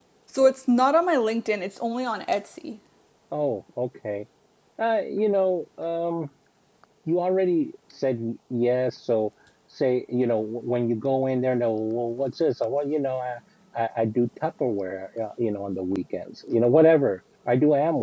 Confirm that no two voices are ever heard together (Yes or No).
Yes